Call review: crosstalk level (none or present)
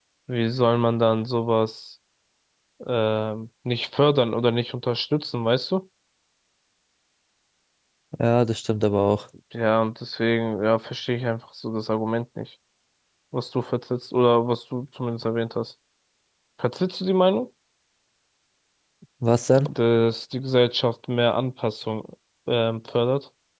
none